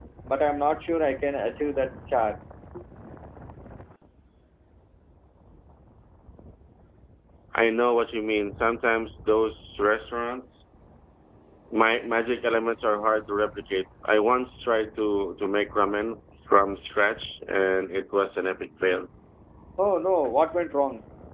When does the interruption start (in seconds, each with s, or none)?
none